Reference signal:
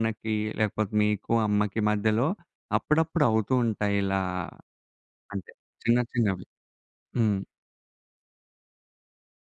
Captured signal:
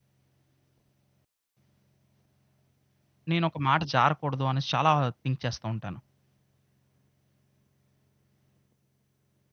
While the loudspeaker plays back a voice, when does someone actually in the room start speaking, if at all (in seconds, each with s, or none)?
3.3 s